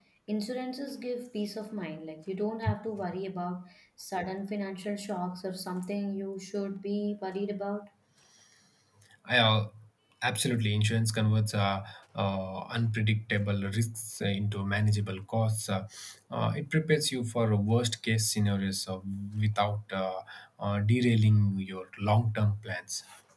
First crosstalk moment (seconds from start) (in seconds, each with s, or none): none